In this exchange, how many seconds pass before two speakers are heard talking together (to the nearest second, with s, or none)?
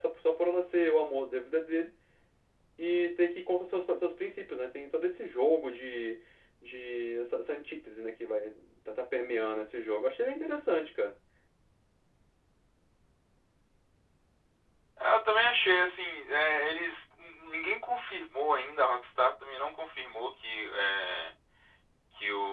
none